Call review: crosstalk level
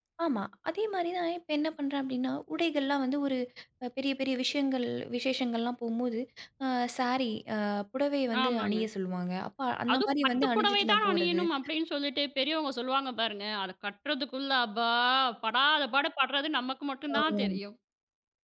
present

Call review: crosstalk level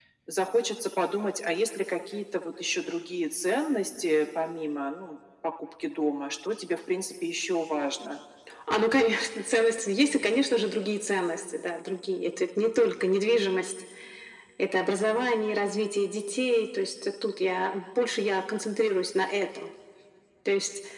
none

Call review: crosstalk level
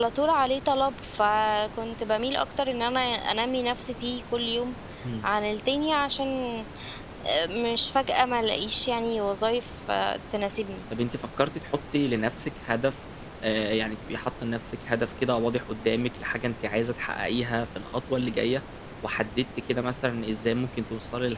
none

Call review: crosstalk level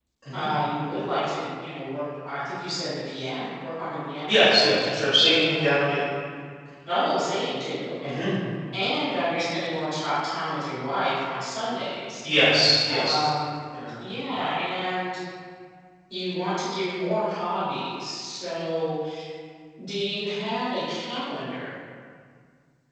present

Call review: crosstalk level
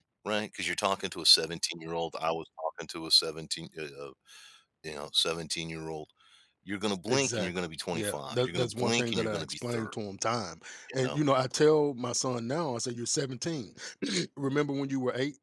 present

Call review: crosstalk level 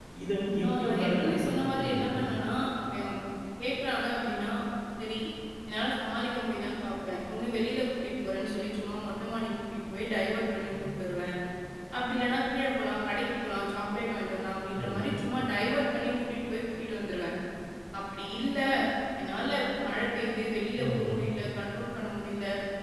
present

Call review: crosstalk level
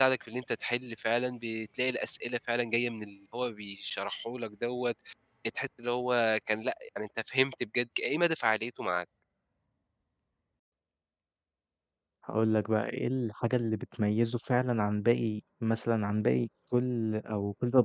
none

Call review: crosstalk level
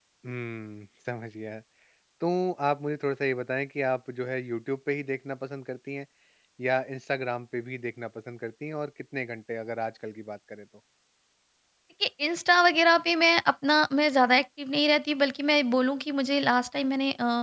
none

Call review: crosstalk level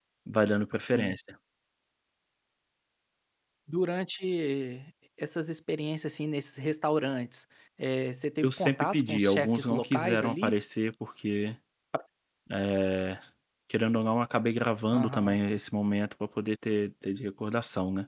present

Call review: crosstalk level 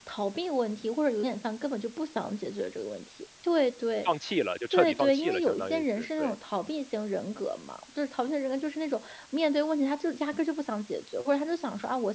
present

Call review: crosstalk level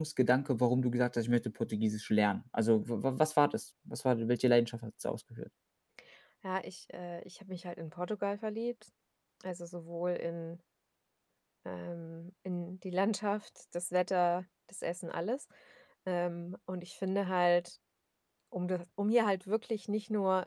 none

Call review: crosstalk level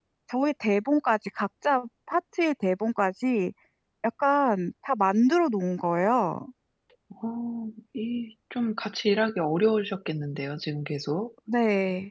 none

